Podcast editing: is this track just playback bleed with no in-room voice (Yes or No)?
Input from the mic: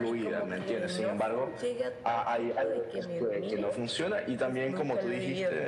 Yes